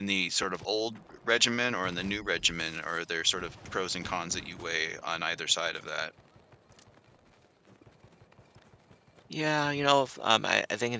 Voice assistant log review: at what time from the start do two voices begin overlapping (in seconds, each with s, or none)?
none